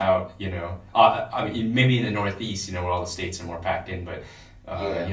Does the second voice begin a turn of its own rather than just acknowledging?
No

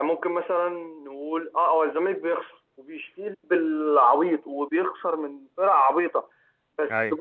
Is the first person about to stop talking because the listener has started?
No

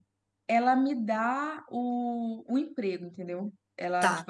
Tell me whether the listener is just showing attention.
Yes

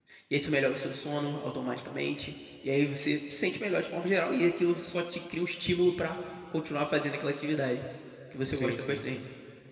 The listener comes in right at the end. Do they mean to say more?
Yes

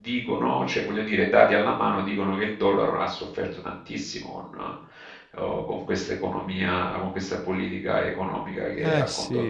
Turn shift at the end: No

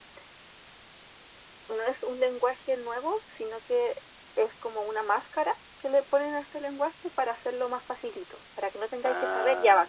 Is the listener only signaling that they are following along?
No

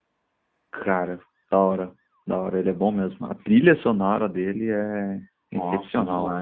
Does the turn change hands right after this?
Yes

